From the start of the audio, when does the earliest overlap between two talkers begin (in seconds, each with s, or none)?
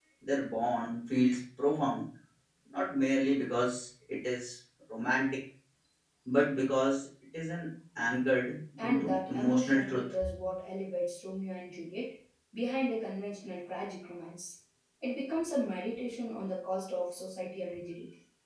8.8 s